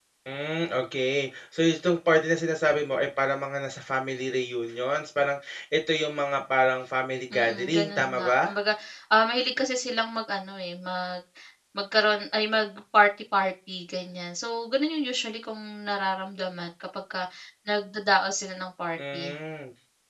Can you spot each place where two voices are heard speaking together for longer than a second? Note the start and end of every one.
7.3-8.6

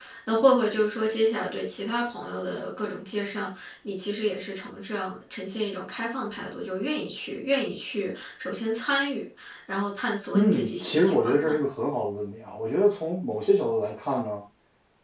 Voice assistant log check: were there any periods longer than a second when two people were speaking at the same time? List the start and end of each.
10.3-11.6

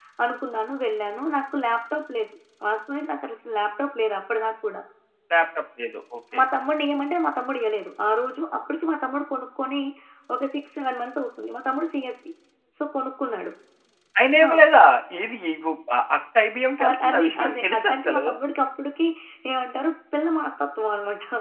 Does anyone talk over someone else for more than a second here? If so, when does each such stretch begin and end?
16.8-18.2

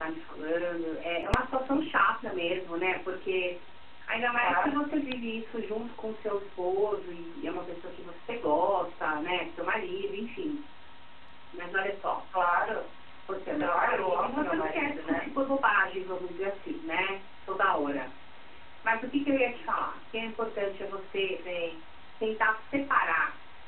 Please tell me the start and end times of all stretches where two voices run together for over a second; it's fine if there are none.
13.6-15.2

